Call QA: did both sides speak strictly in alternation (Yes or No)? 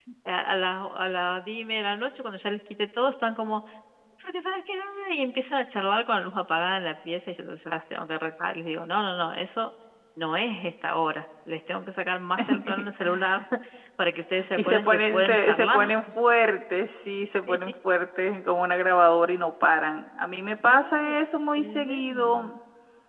No